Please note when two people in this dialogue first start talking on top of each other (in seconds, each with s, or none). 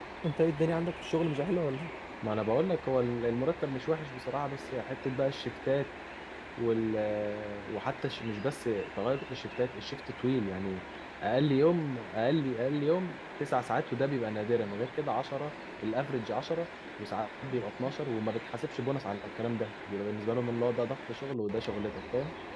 none